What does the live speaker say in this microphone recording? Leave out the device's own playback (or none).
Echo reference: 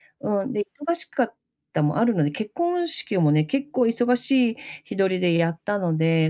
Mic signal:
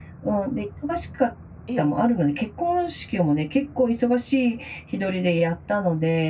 ええ。